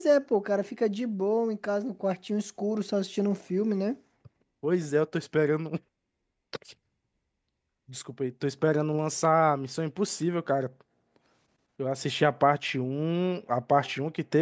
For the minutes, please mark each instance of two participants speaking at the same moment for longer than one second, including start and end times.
none

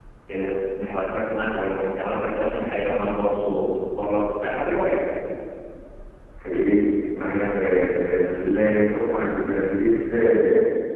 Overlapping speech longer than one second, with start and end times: none

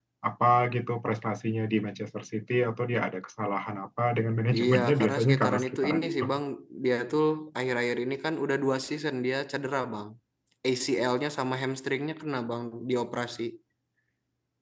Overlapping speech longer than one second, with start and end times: 4.5-6.2

